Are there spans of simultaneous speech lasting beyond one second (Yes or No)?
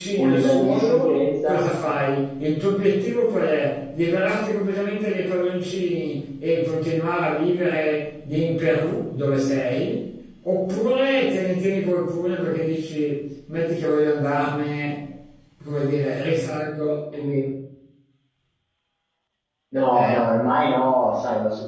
Yes